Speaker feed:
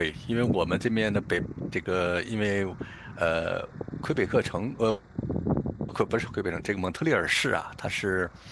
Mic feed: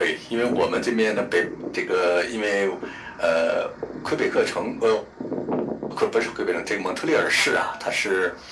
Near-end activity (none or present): present